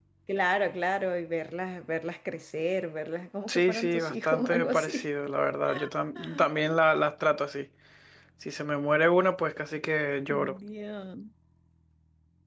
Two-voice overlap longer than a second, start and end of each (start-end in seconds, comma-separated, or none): 3.5-5.1